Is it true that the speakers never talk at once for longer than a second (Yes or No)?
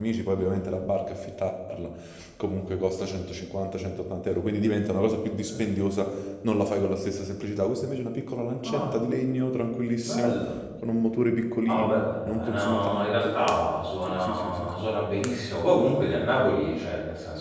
No